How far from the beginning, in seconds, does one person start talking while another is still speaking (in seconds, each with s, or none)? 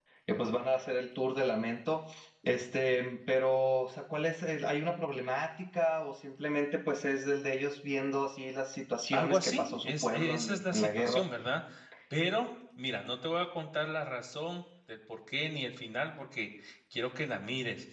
9.1 s